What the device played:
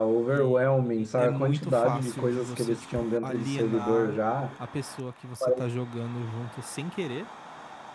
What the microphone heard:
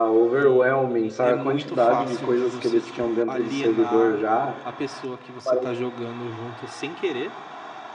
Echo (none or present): present